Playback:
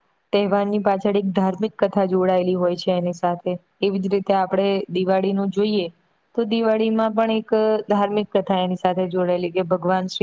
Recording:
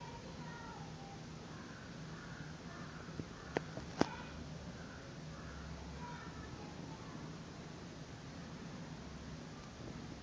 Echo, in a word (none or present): none